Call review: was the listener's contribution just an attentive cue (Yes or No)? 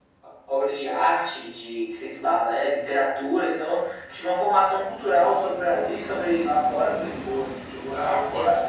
No